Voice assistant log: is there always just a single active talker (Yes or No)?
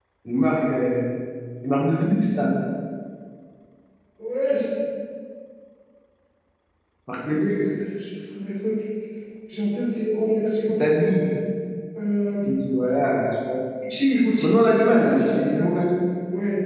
No